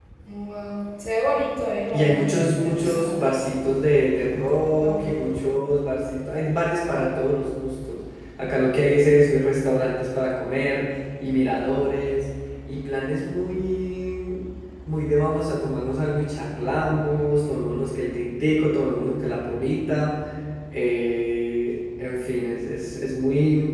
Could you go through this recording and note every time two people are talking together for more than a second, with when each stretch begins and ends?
1.9-3.2

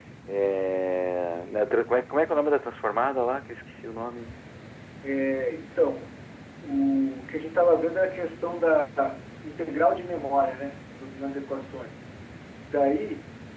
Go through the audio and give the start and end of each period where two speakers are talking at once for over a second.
none

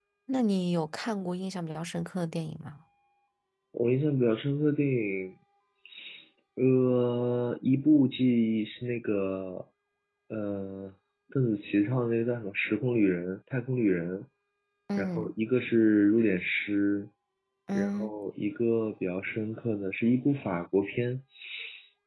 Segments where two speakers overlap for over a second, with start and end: none

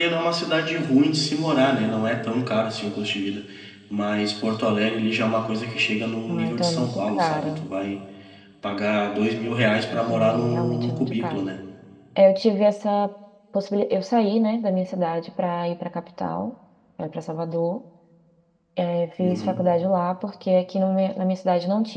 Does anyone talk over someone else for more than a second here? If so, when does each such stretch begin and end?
6.3-7.7, 9.9-11.5

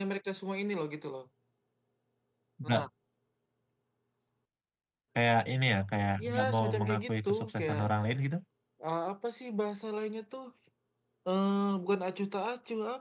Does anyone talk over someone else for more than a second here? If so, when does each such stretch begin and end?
6.2-7.8

